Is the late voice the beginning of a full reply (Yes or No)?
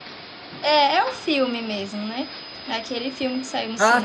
Yes